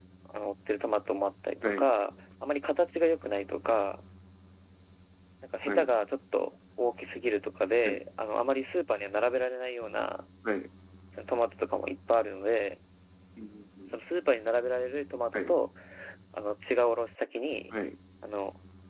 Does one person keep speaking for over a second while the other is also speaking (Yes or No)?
No